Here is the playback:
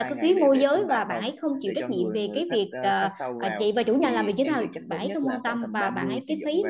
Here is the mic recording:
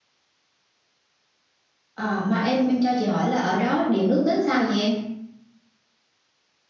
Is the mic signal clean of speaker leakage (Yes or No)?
Yes